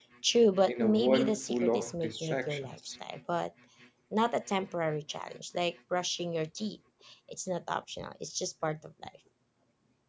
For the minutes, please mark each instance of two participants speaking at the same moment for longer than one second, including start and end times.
0.7-2.9

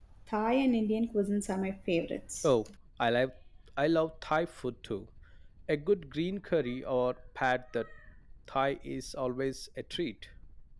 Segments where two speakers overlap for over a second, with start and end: none

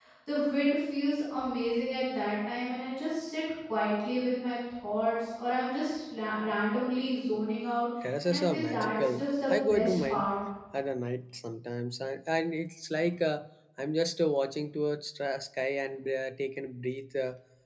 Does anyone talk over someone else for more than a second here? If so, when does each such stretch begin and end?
8.2-10.3

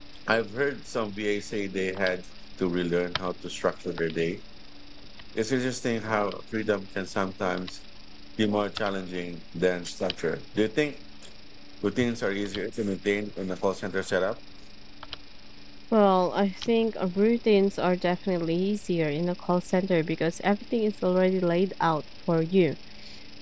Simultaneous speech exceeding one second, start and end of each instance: none

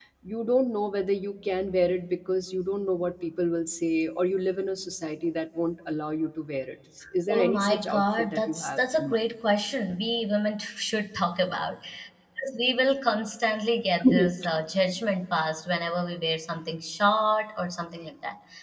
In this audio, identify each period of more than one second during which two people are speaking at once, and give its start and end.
7.3-9.2

